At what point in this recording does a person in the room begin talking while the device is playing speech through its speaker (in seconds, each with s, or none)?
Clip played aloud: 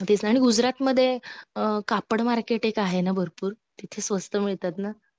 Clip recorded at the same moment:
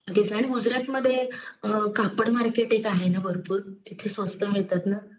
none